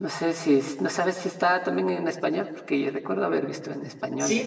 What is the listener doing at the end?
taking over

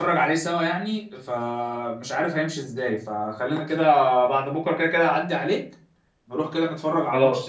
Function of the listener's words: taking over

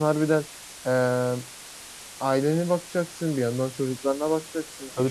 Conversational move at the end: taking over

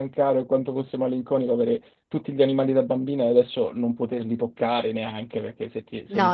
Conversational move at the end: taking over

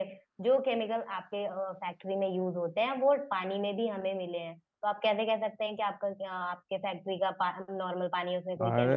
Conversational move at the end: taking over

